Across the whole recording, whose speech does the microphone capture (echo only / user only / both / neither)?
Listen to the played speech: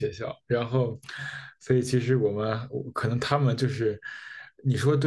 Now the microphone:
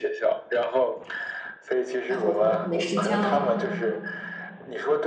both